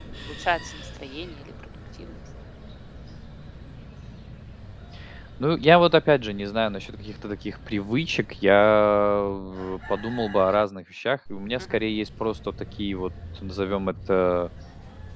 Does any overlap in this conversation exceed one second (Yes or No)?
No